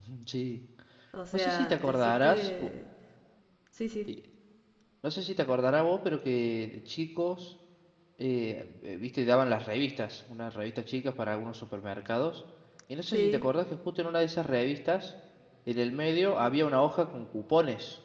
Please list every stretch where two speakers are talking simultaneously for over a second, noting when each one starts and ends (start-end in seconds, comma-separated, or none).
1.3-2.7